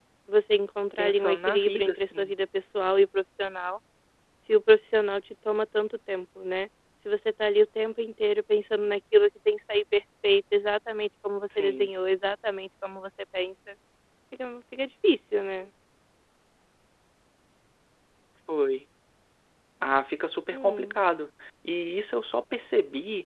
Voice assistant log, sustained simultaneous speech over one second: present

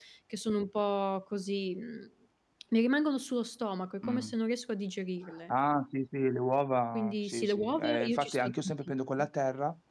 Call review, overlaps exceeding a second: present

